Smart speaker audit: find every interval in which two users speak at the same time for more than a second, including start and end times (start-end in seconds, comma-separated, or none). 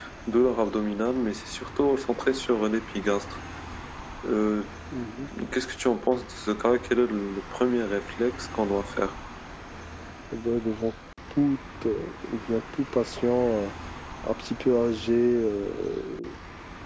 none